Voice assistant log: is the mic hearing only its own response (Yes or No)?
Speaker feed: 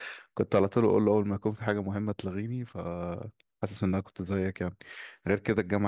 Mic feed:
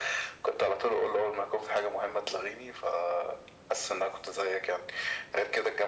Yes